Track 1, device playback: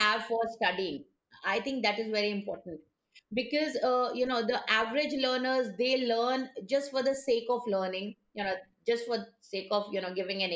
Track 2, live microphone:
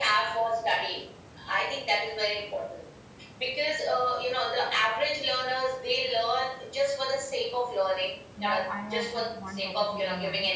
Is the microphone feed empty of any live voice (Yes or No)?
No